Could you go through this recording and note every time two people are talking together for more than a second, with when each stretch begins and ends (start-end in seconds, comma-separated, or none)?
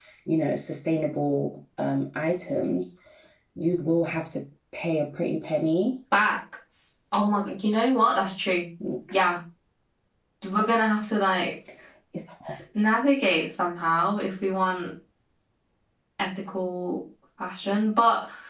none